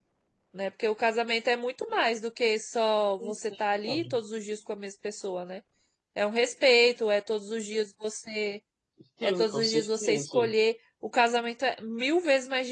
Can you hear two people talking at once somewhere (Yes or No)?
Yes